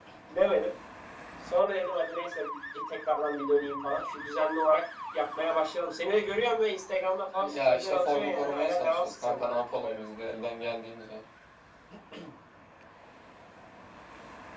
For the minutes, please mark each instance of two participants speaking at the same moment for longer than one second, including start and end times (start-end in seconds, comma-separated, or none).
7.4-10.0